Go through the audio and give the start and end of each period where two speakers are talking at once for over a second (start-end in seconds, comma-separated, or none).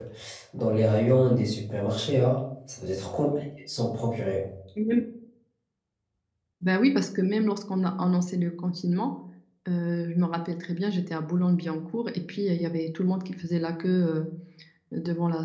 none